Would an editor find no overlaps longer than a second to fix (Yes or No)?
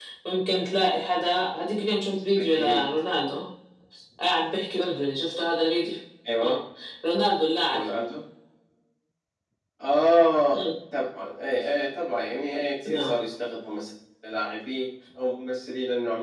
Yes